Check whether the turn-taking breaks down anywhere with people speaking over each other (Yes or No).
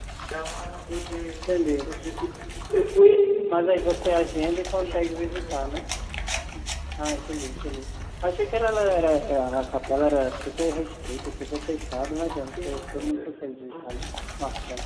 Yes